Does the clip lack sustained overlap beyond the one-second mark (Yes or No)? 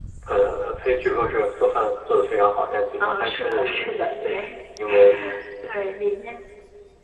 No